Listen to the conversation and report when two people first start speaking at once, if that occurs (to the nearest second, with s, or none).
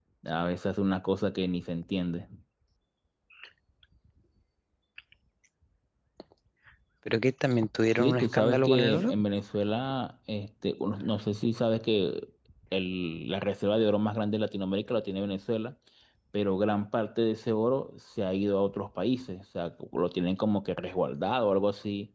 8 s